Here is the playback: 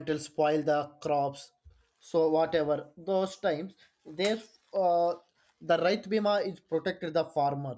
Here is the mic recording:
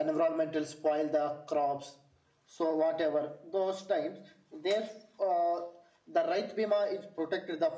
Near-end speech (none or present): none